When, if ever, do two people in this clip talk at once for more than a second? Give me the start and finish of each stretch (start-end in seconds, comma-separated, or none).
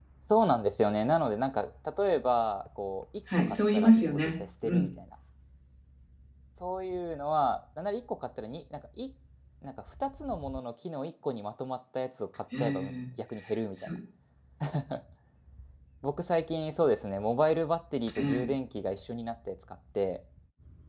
3.4-4.9